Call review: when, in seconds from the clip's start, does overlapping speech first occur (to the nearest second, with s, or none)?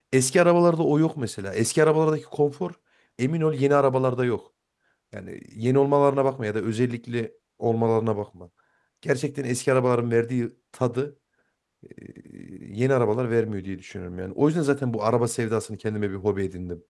none